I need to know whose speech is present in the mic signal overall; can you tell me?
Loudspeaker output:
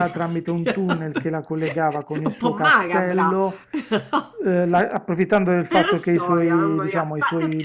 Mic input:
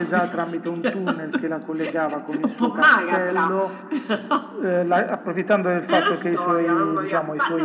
echo only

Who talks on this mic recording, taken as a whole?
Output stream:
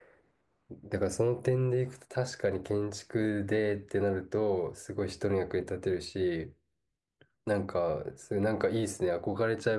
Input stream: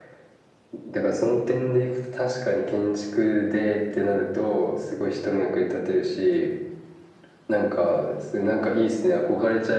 echo only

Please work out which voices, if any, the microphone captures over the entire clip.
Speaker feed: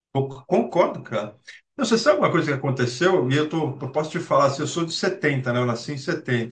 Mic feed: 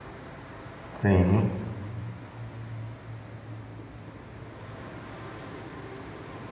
user only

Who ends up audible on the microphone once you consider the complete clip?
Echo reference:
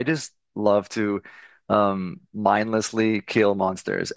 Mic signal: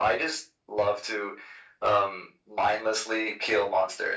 echo only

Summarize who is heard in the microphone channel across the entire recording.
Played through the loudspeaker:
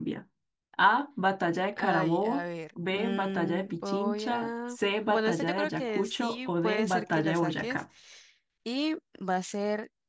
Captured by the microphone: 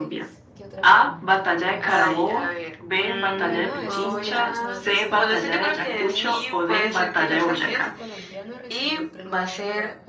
both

